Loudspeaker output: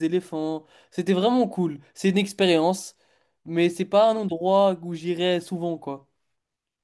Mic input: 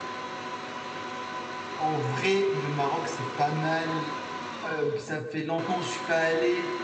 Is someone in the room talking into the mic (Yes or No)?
Yes